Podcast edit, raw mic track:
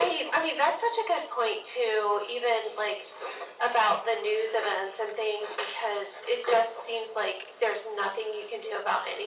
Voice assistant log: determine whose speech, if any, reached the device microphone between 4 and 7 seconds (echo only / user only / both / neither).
echo only